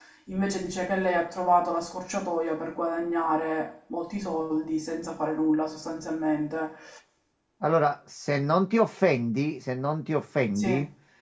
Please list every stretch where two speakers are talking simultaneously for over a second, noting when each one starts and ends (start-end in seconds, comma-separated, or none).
none